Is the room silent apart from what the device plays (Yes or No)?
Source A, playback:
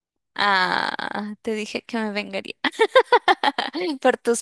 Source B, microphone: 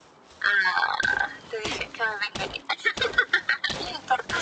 Yes